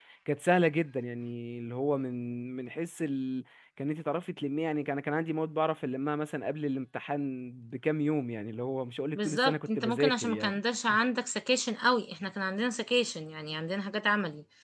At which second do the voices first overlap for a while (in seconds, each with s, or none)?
9.2 s